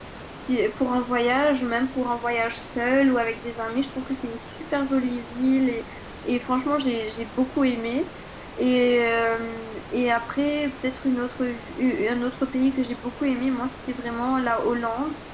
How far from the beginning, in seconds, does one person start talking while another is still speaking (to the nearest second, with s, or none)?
none